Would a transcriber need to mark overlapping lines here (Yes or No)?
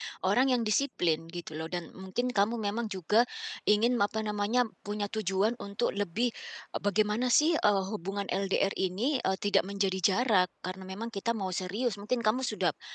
No